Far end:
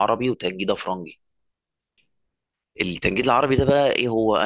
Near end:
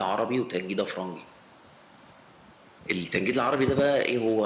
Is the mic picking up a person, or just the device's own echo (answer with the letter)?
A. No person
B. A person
A